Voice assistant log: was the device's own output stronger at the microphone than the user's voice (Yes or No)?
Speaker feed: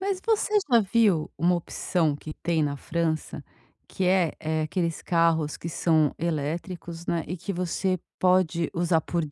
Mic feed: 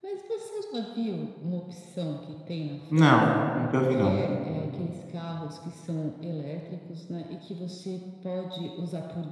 No